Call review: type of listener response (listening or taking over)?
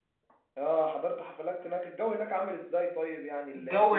taking over